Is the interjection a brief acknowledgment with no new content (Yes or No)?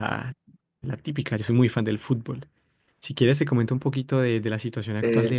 No